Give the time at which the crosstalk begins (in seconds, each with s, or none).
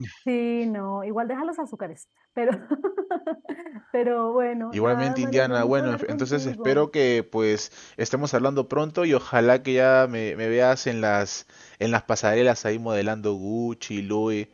4.7 s